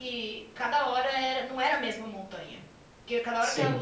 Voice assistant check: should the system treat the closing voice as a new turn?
No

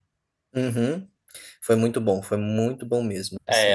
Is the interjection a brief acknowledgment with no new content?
No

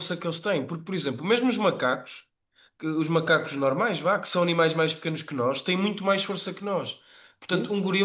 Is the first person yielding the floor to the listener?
No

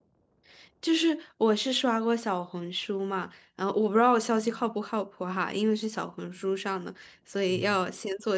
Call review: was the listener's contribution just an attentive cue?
Yes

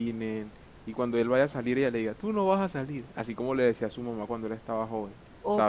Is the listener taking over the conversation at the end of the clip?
Yes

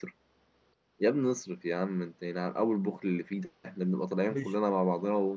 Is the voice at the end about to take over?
No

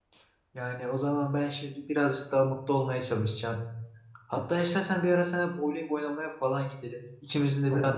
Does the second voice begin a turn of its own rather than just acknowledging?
No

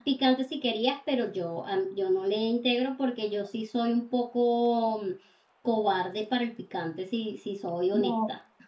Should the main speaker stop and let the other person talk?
Yes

